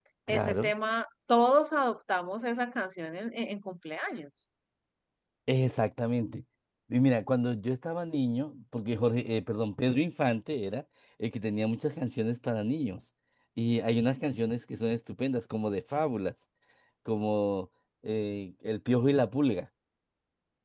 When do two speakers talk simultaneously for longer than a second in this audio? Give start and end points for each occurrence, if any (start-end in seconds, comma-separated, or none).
none